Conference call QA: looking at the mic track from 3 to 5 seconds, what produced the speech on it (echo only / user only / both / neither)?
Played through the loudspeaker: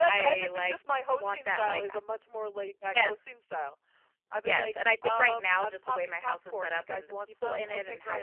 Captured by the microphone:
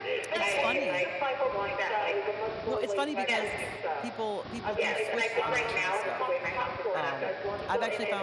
both